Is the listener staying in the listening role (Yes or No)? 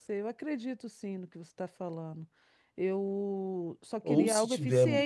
No